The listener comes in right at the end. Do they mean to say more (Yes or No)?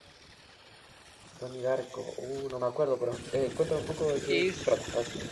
Yes